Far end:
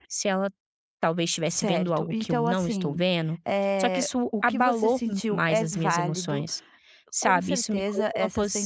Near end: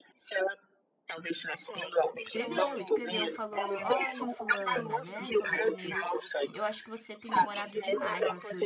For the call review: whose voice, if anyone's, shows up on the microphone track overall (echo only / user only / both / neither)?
both